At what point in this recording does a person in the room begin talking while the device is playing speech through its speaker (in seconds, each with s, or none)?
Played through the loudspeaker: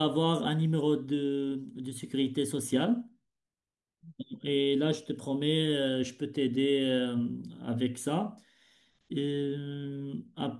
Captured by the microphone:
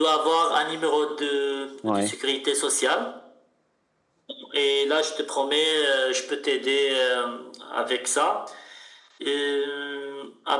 1.8 s